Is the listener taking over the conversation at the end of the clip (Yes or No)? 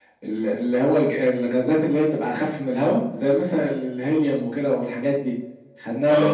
No